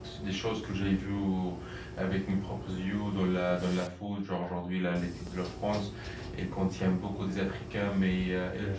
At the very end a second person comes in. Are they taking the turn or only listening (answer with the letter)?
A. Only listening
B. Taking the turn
A